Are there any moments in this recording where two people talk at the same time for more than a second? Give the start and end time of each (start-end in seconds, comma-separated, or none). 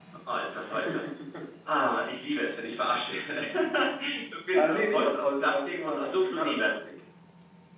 4.5-6.7